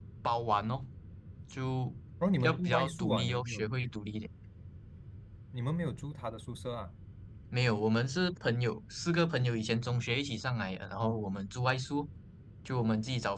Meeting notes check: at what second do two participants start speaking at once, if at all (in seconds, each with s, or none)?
2.4 s